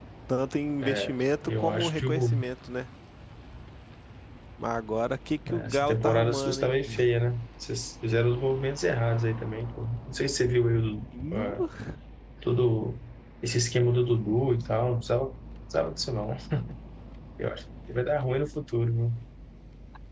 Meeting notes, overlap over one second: present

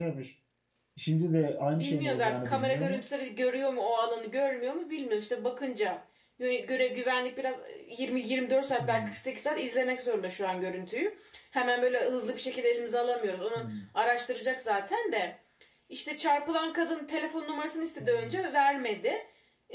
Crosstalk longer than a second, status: present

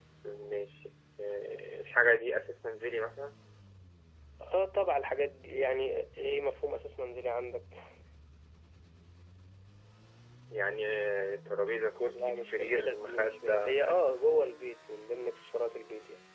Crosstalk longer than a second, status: present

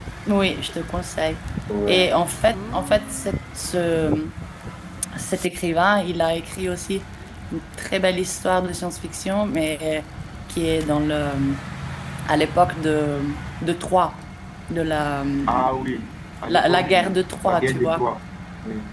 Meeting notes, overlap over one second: present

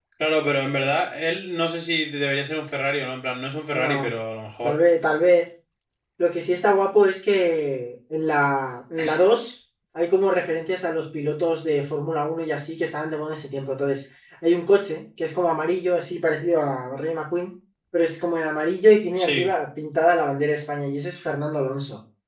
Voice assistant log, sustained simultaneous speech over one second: none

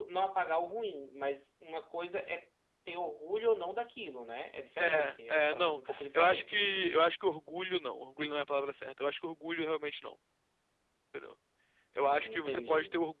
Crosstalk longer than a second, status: present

